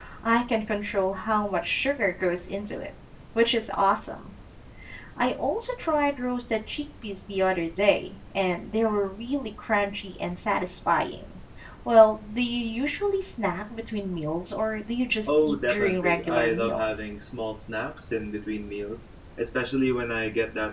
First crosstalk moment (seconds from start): 15.3 s

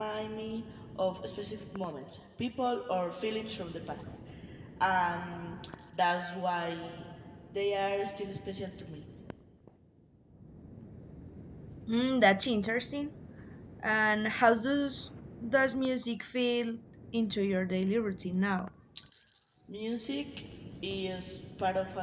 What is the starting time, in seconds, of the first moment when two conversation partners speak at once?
none

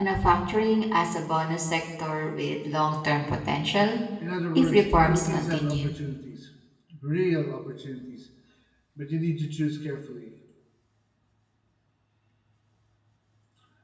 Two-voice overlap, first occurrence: 4.6 s

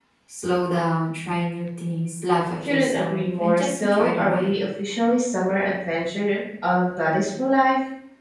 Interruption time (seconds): 2.6 s

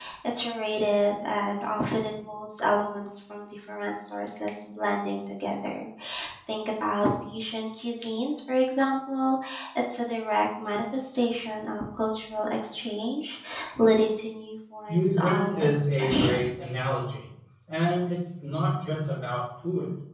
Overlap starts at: 14.9 s

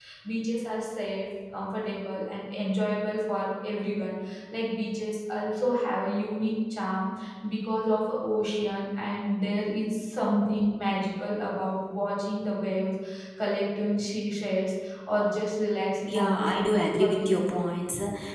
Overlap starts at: 16.1 s

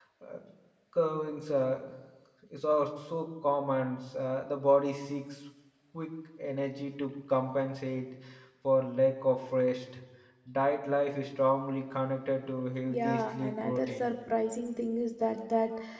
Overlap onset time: 12.8 s

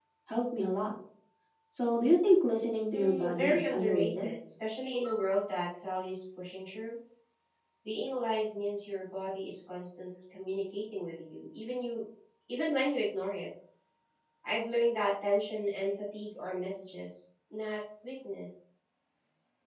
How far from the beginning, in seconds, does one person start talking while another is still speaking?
2.9 s

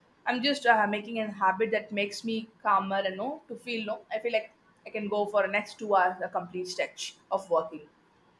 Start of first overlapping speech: none

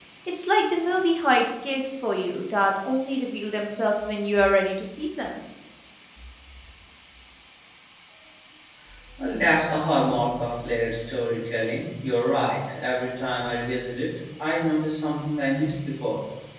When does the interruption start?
none

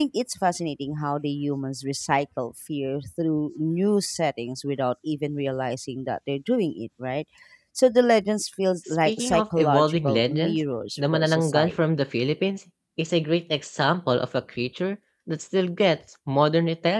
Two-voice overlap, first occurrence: 9.1 s

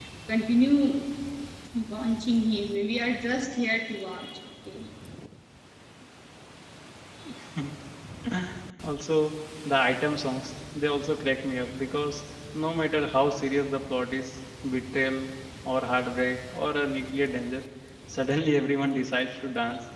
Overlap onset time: none

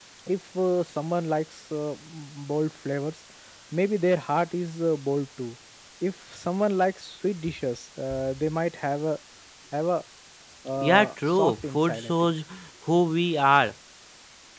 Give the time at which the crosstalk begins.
10.8 s

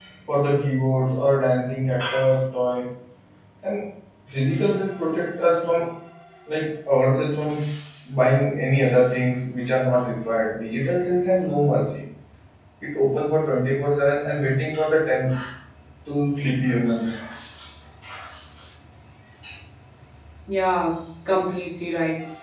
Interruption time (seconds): none

